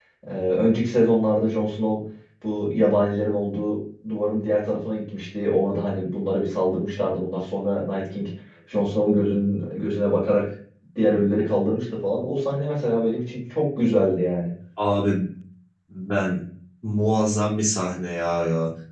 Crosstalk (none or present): none